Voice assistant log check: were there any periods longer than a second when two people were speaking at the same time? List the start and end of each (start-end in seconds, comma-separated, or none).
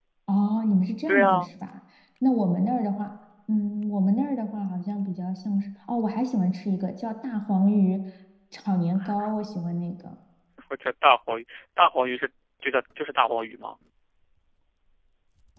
none